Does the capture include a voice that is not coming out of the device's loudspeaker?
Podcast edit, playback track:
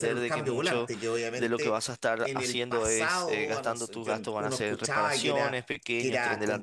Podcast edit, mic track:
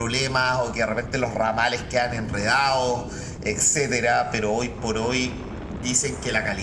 Yes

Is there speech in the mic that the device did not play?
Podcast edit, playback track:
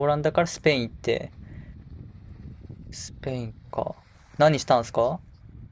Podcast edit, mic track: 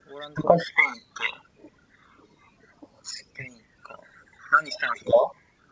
No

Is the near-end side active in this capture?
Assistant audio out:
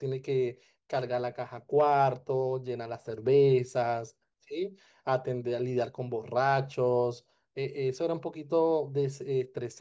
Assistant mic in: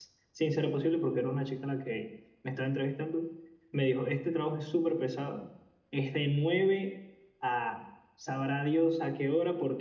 Yes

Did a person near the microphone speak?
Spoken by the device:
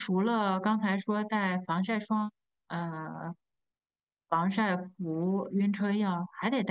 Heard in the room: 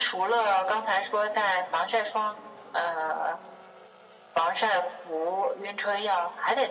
No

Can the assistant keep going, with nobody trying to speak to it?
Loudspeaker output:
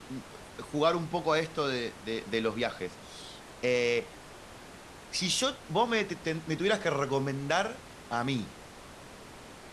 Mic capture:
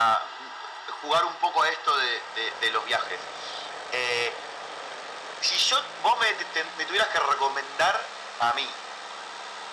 Yes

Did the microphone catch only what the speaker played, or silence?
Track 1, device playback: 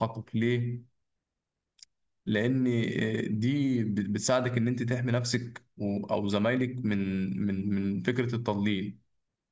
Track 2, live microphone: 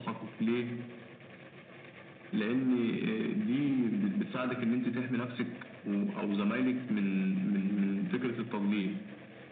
Yes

